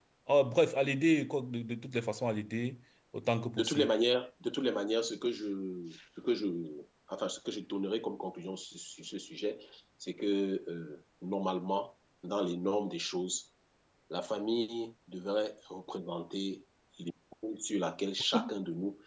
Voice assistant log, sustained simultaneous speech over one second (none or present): none